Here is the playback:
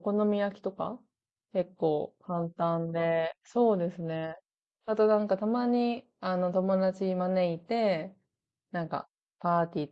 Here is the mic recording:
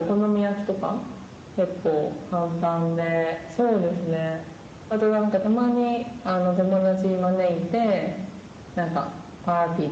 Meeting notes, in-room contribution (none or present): none